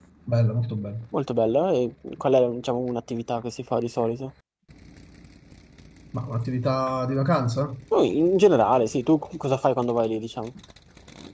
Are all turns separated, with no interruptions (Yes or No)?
Yes